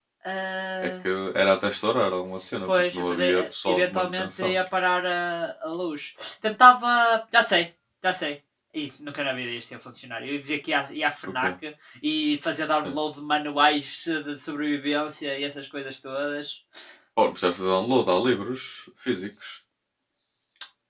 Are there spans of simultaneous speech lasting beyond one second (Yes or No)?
Yes